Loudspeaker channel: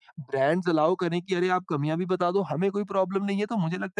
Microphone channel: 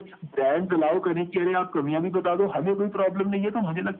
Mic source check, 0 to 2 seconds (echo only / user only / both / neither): echo only